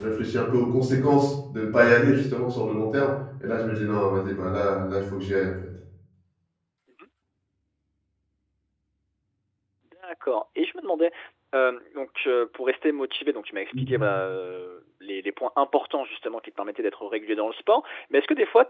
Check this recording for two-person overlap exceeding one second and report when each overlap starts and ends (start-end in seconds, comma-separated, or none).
none